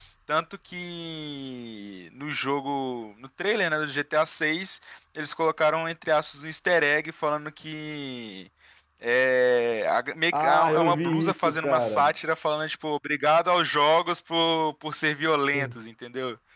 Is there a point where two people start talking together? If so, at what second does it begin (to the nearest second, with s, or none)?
10 s